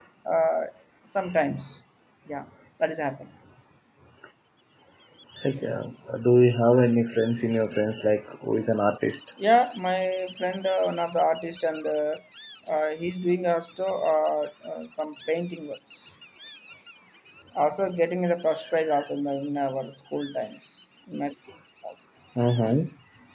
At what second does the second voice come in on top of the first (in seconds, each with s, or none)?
none